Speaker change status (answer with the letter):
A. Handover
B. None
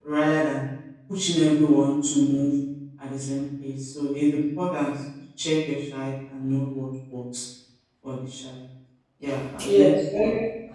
A